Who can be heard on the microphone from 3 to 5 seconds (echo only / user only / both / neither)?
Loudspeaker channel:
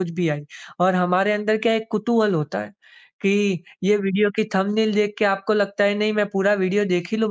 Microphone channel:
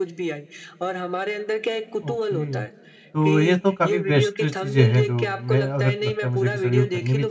both